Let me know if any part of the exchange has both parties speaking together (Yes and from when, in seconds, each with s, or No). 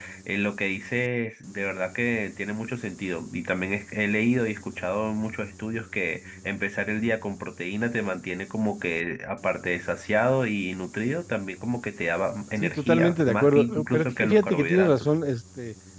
Yes, from 12.6 s